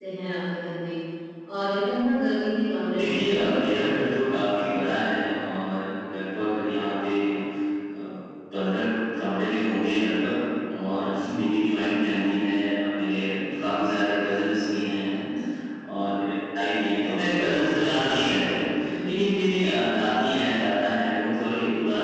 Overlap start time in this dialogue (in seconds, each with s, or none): 2.9 s